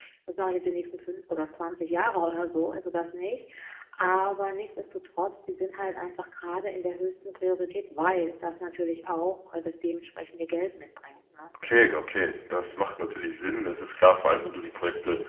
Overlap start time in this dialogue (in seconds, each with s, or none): none